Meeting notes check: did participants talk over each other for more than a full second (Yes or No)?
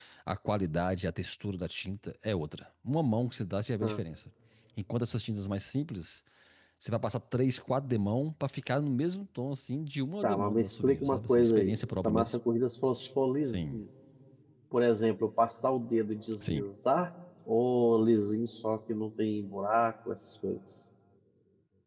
Yes